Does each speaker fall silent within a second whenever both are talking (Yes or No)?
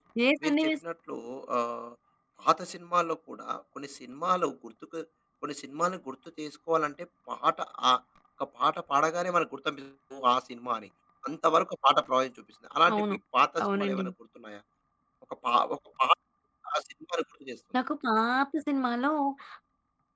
Yes